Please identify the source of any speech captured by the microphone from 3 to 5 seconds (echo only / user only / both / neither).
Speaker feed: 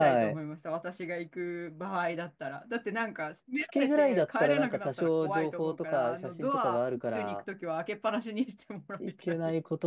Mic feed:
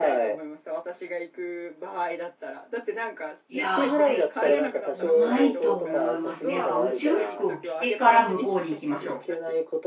both